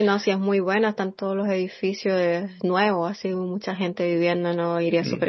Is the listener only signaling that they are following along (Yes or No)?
No